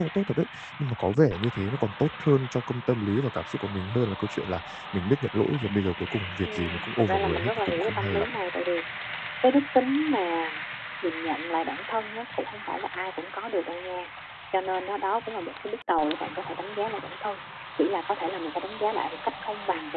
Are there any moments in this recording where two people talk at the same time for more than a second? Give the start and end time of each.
6.4-8.3

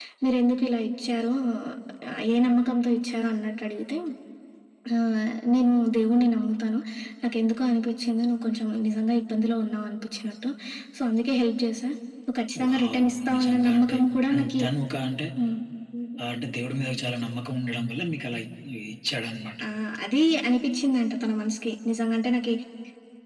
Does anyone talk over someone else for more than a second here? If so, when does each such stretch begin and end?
12.7-14.0

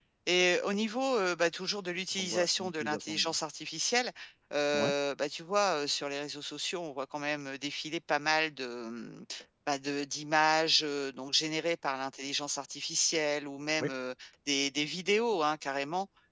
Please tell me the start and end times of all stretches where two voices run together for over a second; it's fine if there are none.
2.1-3.4

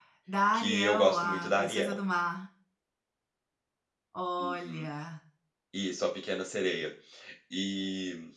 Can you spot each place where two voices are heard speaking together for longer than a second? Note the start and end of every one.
0.5-2.0

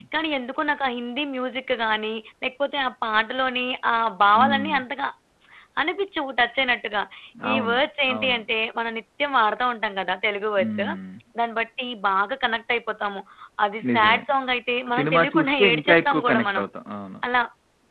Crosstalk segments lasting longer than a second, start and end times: 14.9-16.6

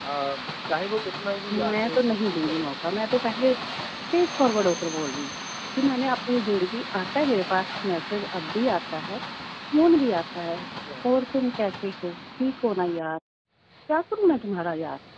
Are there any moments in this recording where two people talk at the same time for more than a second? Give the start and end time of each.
1.5-3.0

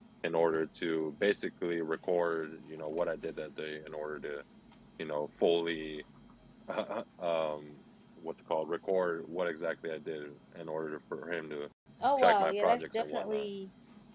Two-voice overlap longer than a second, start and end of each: 12.2-13.5

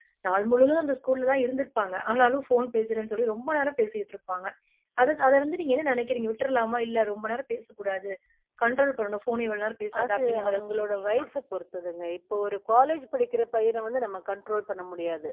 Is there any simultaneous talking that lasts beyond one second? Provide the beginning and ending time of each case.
10.0-11.2

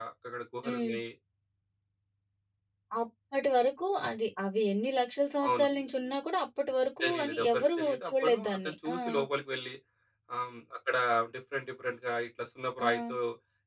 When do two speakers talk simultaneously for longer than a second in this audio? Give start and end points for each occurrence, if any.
7.0-8.9

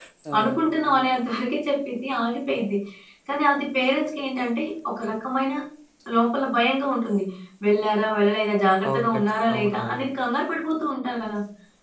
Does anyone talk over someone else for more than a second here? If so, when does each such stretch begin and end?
8.9-10.1

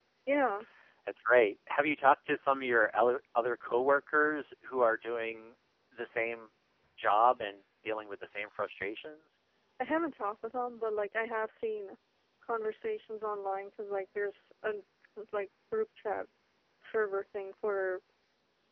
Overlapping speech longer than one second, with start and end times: none

